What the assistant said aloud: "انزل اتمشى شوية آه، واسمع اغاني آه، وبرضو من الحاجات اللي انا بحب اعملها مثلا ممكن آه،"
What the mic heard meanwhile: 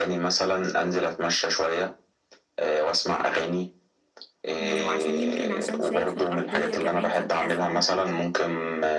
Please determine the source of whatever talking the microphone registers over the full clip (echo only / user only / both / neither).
both